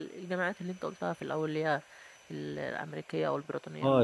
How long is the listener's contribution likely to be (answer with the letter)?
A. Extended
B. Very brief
A